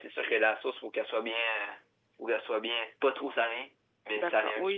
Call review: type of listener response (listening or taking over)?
taking over